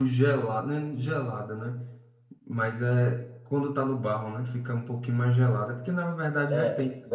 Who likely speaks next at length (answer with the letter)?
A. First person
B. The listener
B